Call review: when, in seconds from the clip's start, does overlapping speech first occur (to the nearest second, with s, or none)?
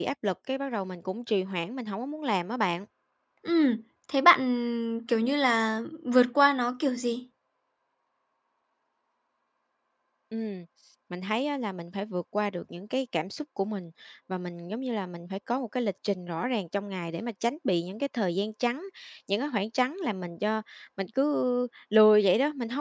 none